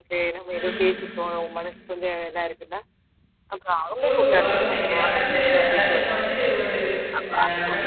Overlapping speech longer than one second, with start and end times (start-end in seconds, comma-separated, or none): 4.0-6.3